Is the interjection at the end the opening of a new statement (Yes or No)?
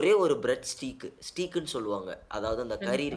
Yes